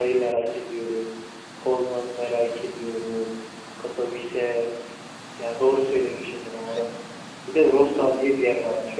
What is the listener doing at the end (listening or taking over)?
listening